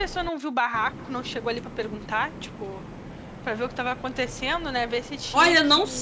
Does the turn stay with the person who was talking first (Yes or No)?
No